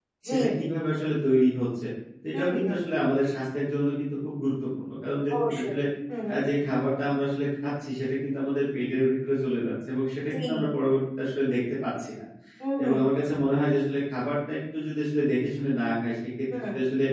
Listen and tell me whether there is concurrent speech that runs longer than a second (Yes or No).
No